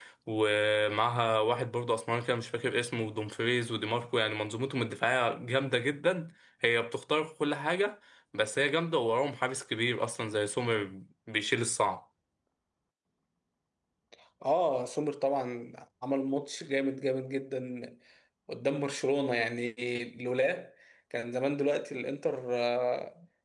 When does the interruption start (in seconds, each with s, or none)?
none